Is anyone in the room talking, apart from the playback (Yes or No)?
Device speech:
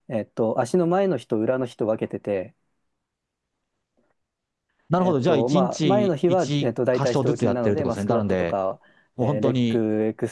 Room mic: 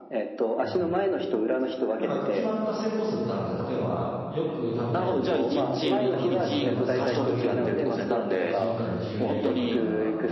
Yes